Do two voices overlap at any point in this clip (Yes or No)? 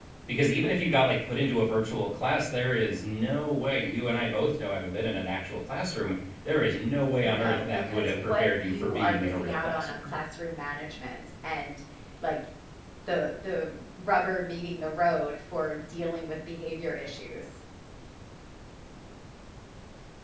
Yes